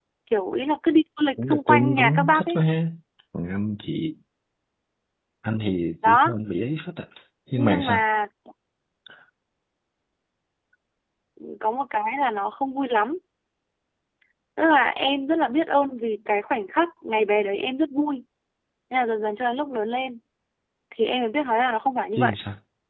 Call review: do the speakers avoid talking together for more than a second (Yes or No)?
No